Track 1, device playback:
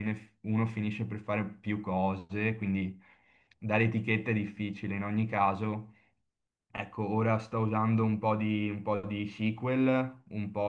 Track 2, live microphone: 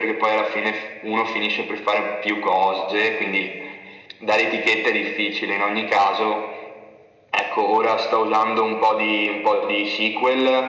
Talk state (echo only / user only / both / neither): echo only